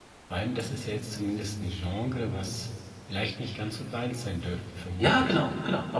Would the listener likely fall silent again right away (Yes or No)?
No